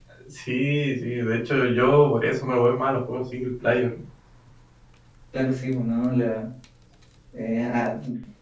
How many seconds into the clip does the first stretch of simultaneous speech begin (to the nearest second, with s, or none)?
none